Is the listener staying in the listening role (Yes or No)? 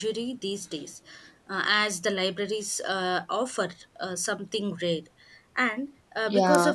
Yes